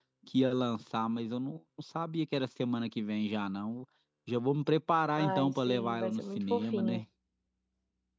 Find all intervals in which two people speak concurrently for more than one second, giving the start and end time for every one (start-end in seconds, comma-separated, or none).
5.2-7.0